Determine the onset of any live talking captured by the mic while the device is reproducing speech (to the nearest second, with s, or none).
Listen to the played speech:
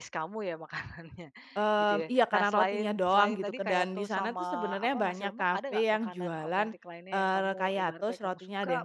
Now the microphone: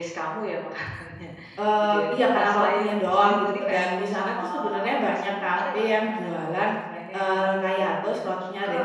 none